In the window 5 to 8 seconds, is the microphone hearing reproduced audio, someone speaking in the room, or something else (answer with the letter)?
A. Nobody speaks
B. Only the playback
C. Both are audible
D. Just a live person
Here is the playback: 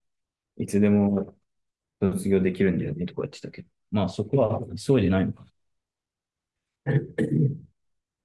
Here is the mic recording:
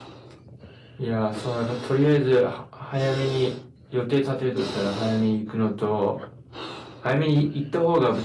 D